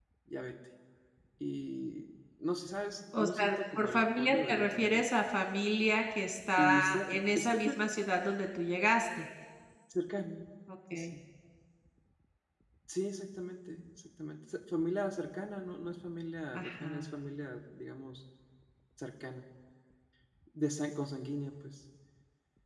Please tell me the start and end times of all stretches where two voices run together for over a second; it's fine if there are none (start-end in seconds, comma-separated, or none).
3.1-5.0, 6.6-7.9